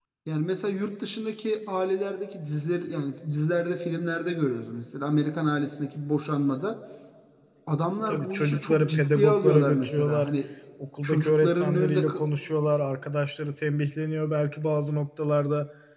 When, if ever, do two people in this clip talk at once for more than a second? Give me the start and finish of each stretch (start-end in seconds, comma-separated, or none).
8.1-10.3, 11.0-12.2